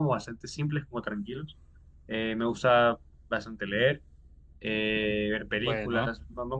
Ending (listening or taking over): listening